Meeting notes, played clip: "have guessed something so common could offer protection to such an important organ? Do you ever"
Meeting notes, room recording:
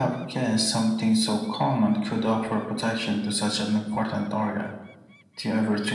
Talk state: echo only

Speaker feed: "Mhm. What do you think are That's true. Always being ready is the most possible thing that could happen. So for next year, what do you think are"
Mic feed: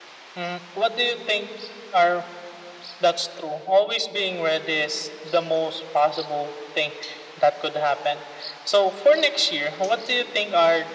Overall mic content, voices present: echo only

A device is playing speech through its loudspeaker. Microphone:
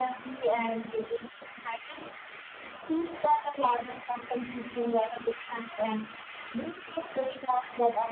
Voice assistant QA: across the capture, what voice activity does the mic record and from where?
echo only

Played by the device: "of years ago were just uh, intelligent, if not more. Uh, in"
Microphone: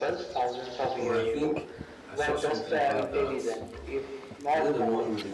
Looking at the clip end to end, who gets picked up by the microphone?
both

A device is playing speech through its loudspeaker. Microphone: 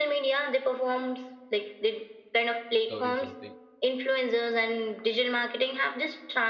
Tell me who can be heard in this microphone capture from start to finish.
both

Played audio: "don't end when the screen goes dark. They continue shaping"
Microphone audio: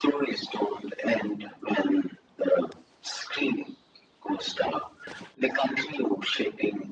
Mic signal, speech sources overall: echo only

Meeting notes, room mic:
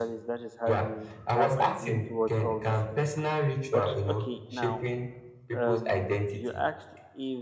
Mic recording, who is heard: both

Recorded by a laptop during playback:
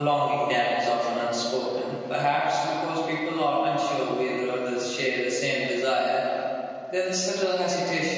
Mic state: user only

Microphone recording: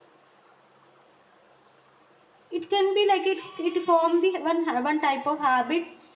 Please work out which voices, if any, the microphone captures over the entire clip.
user only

